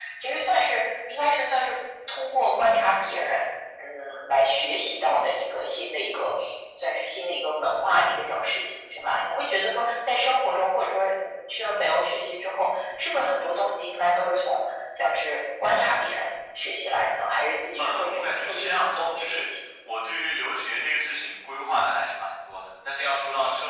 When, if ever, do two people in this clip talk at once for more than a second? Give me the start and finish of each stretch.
17.8-19.5

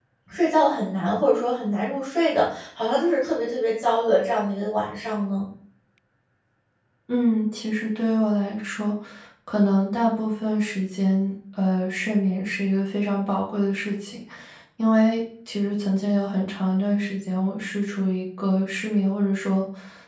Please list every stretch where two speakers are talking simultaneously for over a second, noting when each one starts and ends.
none

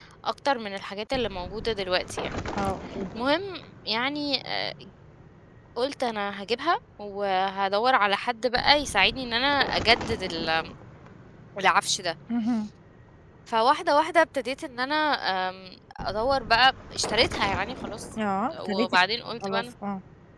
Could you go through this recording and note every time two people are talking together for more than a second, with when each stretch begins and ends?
none

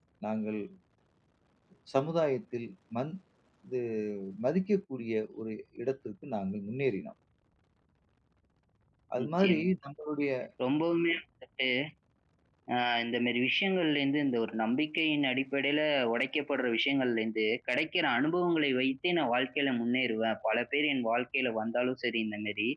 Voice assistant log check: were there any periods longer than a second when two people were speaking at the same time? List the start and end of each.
none

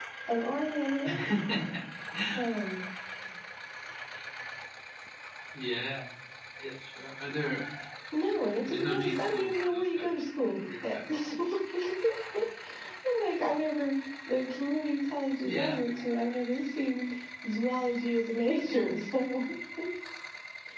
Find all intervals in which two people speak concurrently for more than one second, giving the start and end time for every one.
8.7-10.1

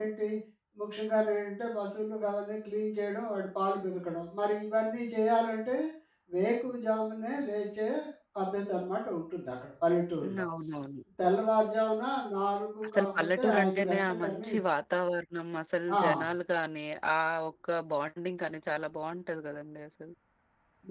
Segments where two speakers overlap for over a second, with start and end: 12.9-14.5

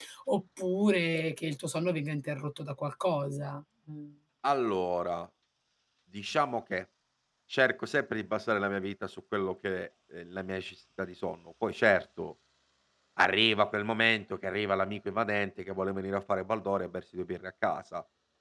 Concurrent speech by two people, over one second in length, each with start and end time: none

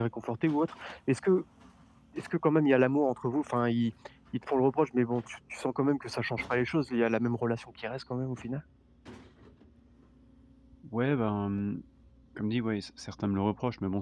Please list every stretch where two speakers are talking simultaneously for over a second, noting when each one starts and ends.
none

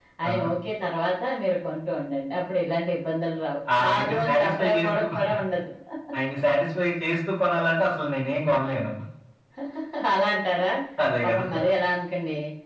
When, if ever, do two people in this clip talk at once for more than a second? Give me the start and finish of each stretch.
3.8-5.0

